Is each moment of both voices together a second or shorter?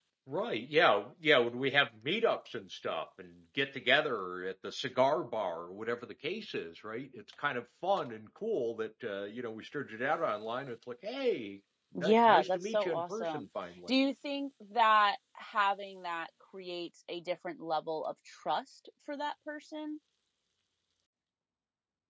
No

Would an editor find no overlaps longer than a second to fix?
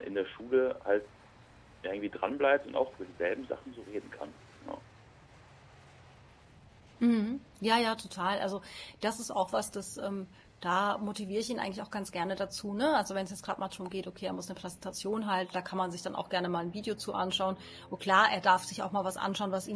Yes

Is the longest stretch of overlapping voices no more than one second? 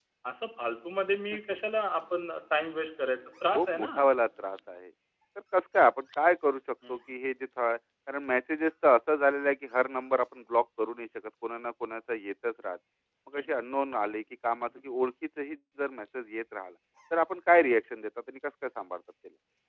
Yes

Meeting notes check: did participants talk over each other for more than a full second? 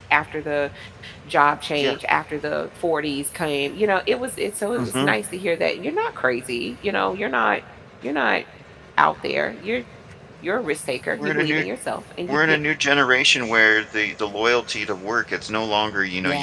No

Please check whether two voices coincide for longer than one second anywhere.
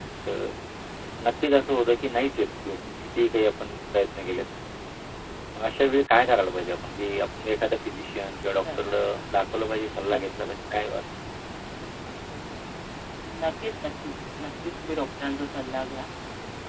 No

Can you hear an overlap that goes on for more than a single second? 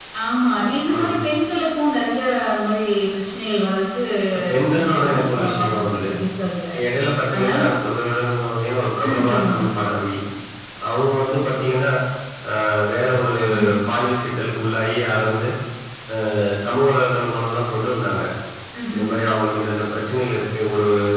Yes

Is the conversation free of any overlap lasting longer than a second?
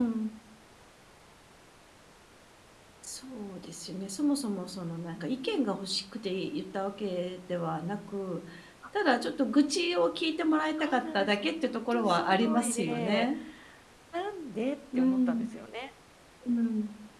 No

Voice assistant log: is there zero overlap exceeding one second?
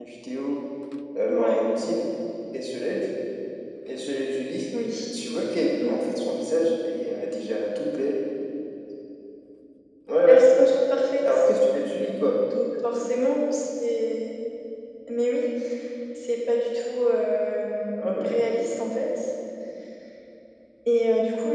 Yes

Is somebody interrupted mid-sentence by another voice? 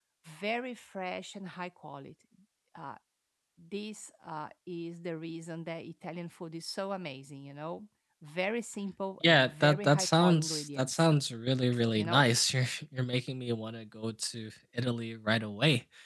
Yes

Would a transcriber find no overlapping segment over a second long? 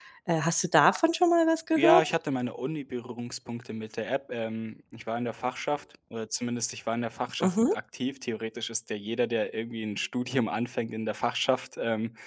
Yes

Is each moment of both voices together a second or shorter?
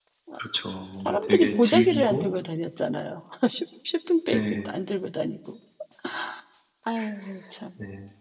No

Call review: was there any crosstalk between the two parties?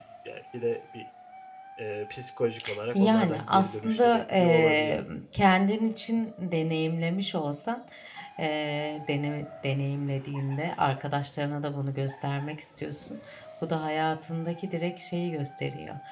Yes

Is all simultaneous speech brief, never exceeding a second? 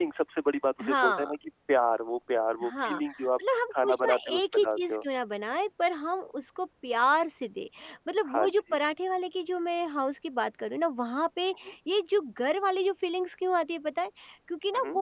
No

